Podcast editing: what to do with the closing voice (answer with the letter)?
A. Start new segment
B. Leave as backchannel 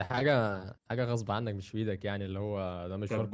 A